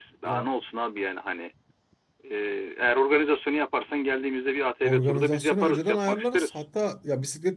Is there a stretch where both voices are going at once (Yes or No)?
Yes